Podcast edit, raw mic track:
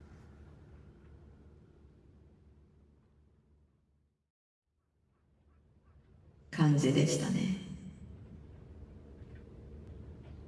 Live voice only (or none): 感じでしたね。